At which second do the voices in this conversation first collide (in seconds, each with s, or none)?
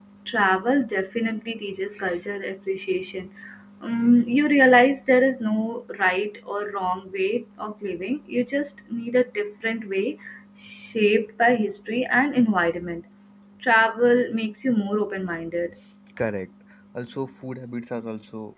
none